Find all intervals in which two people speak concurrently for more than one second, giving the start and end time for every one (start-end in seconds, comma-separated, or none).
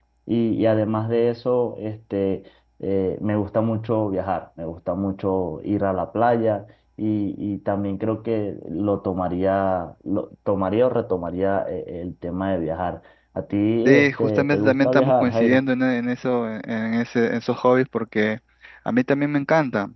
13.8-15.6